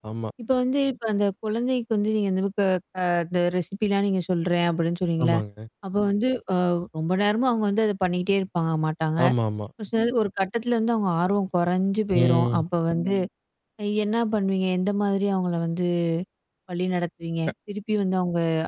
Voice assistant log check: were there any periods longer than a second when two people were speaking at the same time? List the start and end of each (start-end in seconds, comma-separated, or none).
none